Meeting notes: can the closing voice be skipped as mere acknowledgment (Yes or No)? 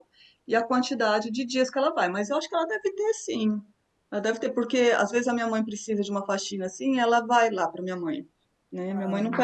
Yes